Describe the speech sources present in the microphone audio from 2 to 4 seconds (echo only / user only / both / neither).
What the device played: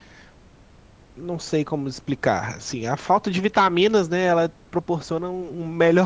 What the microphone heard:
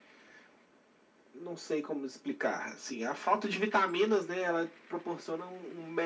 echo only